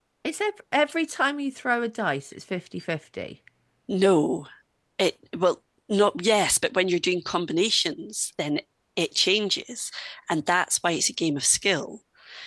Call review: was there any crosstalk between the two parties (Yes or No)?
No